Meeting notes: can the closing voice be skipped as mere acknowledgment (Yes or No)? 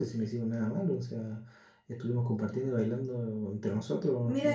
No